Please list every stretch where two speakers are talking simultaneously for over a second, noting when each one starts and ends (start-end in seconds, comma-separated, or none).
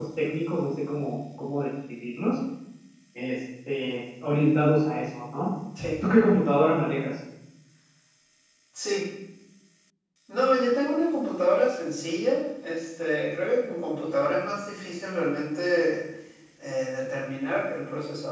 none